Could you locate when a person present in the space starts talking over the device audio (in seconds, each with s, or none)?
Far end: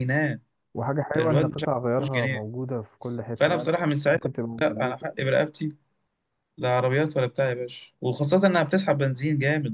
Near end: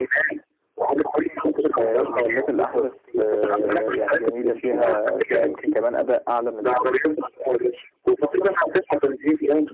1.8 s